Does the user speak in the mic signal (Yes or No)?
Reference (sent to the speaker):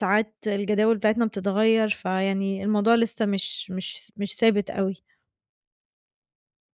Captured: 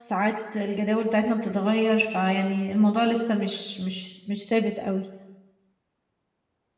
No